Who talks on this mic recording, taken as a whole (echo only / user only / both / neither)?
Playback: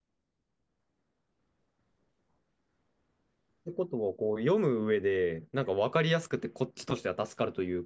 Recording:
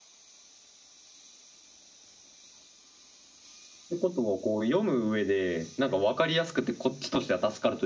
echo only